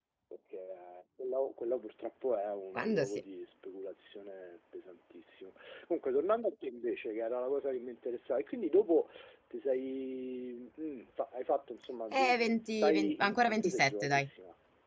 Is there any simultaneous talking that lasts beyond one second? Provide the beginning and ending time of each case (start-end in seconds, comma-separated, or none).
12.1-14.3